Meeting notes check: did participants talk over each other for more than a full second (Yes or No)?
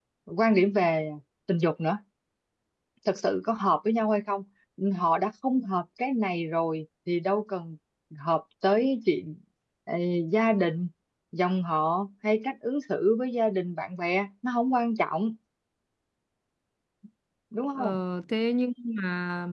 No